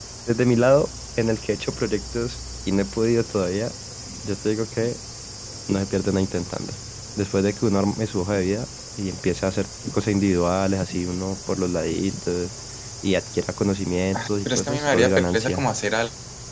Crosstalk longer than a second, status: present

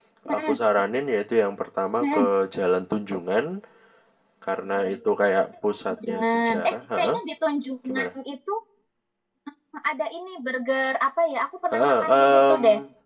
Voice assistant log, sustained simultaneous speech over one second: present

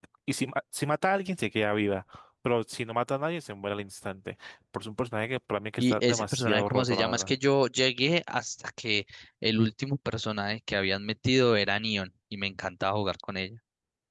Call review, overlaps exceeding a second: present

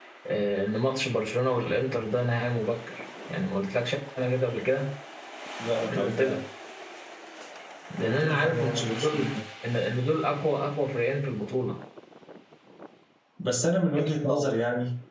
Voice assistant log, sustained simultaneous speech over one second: present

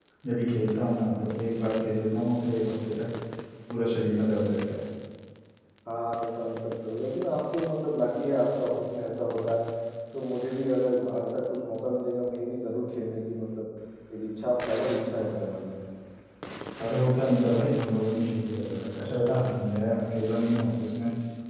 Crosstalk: none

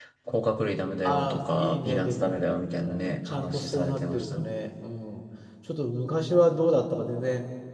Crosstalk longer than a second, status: present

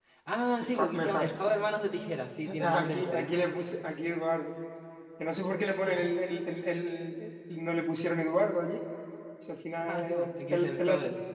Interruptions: present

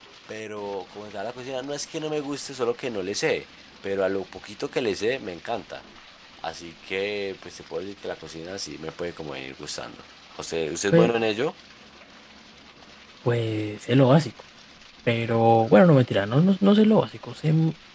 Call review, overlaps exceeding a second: none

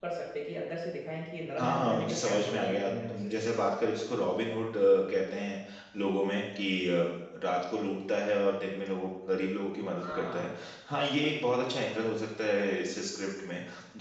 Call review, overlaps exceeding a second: present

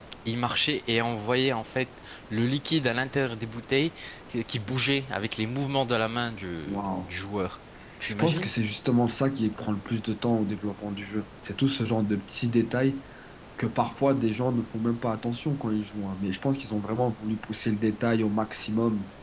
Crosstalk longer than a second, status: none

